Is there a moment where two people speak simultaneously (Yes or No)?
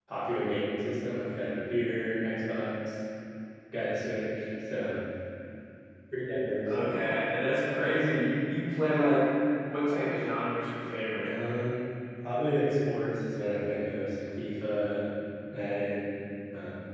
No